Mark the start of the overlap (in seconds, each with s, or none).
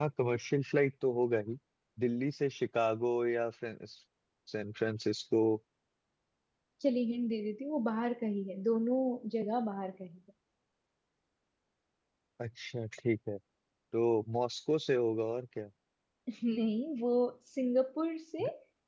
none